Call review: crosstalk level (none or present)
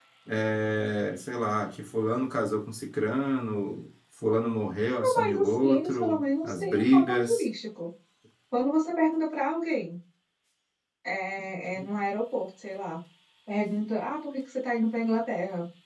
present